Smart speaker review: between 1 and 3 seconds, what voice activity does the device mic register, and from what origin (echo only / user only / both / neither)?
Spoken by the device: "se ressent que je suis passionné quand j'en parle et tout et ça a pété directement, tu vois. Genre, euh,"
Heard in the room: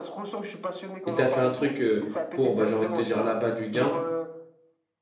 both